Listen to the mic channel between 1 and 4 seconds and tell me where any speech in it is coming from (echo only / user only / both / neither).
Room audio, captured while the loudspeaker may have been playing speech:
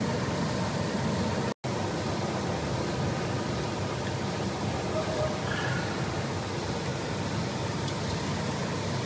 neither